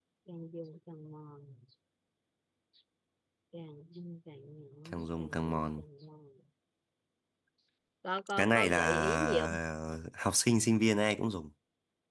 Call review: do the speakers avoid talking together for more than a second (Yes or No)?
No